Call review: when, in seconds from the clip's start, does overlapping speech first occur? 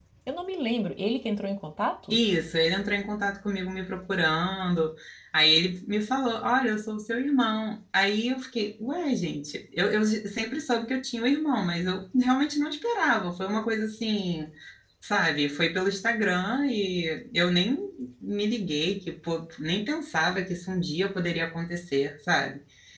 none

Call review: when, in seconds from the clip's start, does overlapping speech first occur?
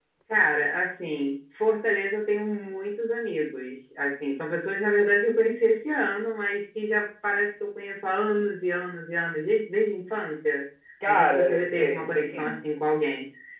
11.1 s

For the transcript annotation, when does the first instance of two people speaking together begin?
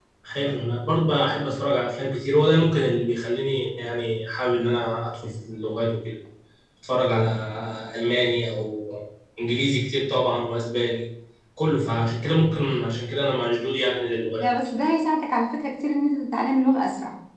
none

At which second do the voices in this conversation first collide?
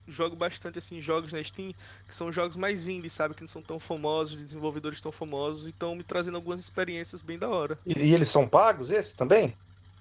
none

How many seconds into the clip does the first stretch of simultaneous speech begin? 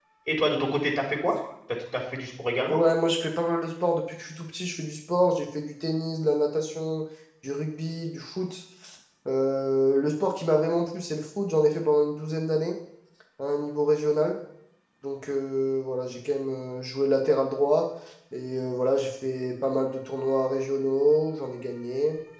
none

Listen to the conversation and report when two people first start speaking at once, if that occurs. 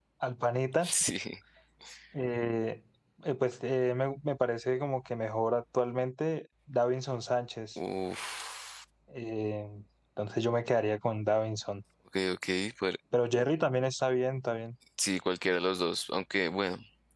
none

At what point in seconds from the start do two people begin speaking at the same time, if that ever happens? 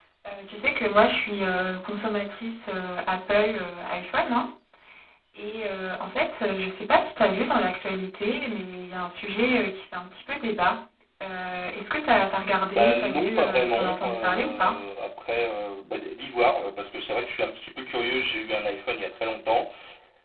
12.7 s

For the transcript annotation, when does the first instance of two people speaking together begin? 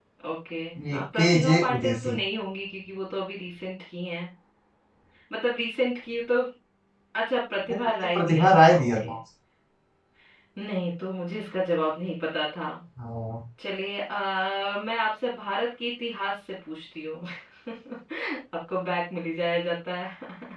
0.9 s

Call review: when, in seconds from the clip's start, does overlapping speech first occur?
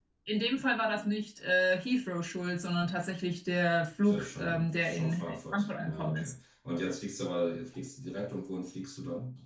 4.1 s

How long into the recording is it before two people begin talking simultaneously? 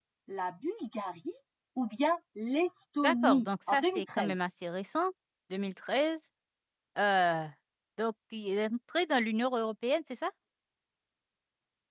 3.0 s

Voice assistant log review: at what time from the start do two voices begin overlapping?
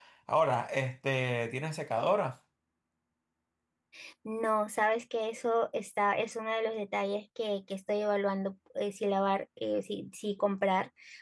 none

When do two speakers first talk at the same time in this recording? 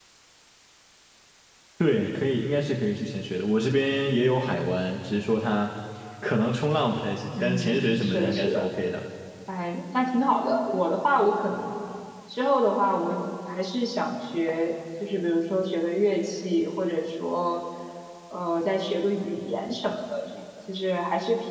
7.3 s

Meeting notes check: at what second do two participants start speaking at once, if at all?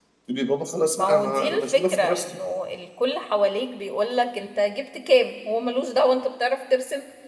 1.0 s

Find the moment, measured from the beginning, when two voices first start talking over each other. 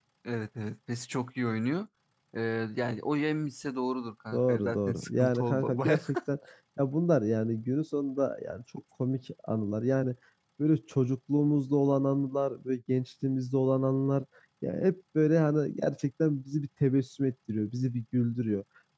4.3 s

